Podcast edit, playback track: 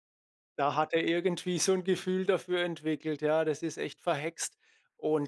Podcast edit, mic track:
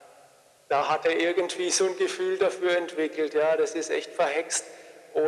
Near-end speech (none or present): none